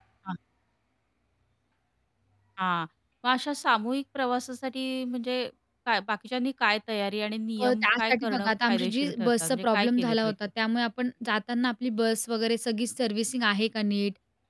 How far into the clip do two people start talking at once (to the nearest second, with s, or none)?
8 s